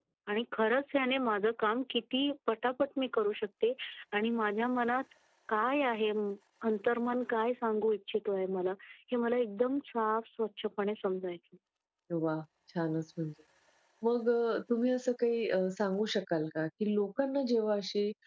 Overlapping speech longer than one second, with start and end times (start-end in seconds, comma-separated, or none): none